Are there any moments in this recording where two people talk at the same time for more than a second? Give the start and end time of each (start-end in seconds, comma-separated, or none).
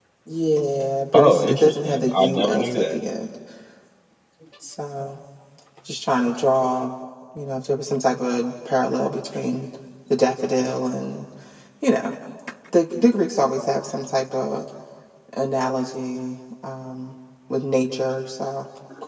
1.1-3.0